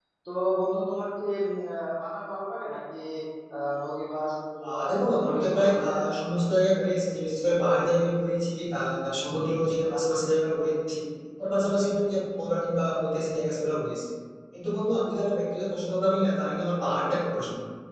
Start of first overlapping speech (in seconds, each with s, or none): 4.6 s